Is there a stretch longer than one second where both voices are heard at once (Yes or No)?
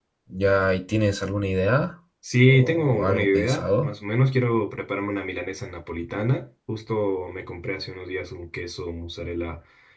Yes